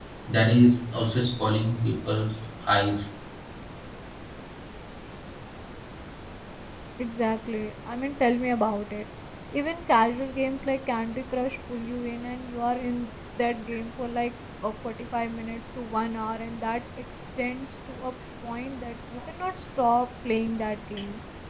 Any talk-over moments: No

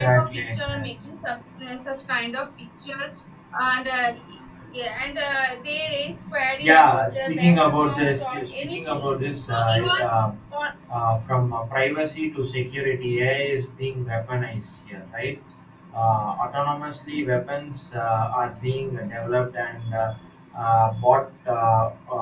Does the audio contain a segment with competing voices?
Yes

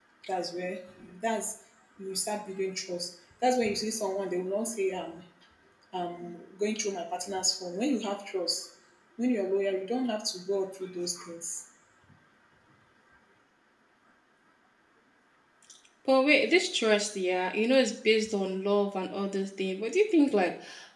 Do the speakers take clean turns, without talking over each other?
Yes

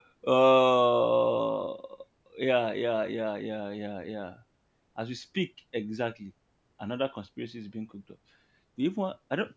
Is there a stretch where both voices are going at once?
No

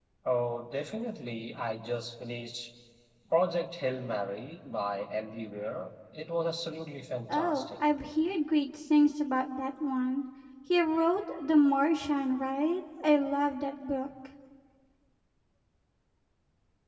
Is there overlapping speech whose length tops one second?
No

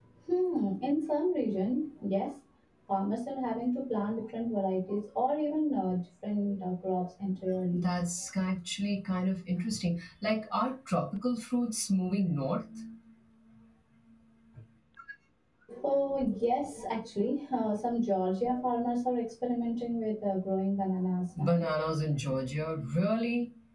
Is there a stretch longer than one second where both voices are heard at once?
No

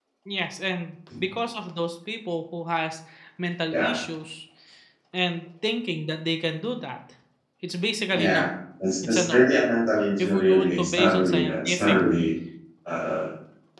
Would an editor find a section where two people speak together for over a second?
Yes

